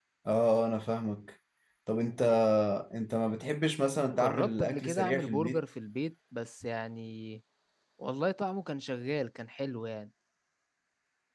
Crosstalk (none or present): present